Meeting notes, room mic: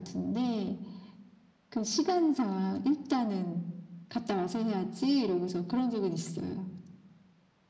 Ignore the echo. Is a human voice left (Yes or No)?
No